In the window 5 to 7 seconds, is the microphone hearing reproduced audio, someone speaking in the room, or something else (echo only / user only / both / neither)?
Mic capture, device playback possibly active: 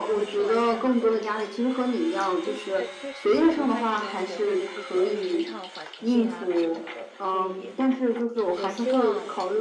both